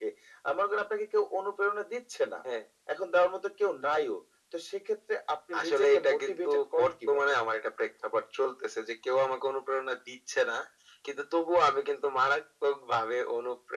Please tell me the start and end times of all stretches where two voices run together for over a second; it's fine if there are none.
5.6-7.2

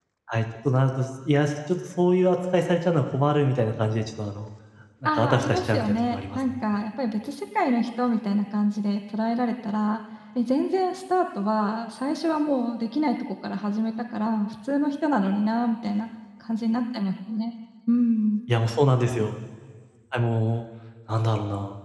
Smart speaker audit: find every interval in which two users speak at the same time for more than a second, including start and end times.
5.1-6.5

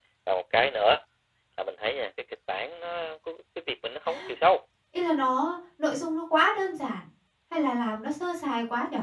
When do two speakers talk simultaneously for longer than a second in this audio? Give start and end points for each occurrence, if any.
none

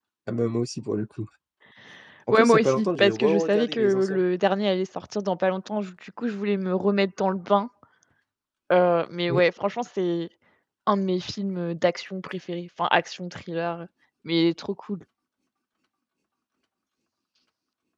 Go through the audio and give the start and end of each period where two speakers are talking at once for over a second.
2.3-4.2

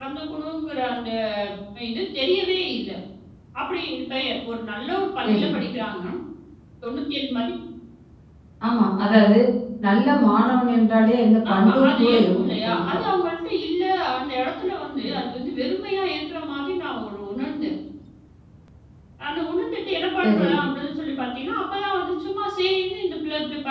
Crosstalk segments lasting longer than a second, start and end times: 11.5-12.8

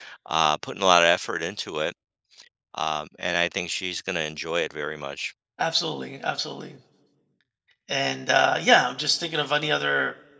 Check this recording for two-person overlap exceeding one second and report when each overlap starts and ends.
none

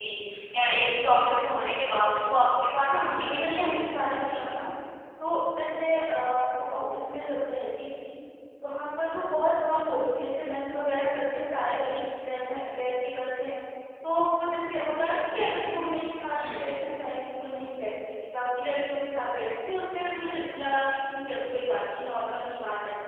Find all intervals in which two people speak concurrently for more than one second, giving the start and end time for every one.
2.8-4.4

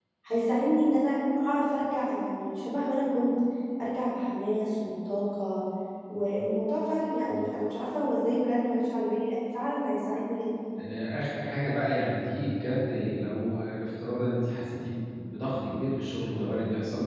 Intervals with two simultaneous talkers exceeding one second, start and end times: none

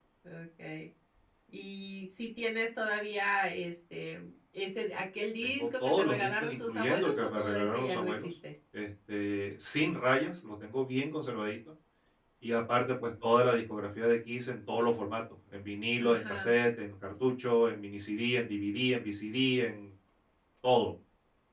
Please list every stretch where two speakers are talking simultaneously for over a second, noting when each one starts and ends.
5.4-8.3

